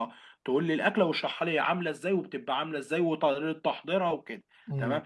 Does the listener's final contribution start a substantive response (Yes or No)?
No